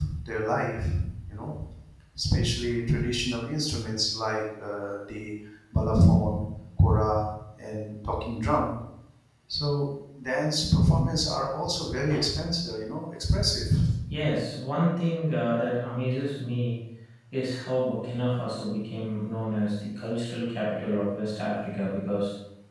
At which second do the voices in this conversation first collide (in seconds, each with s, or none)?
none